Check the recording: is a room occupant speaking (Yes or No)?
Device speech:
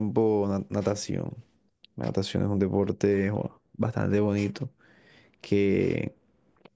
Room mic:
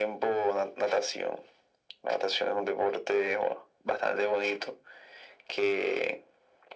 No